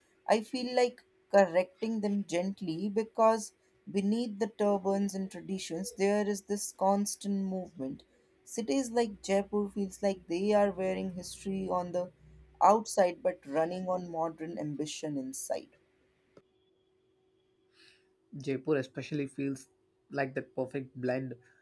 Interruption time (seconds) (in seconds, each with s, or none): none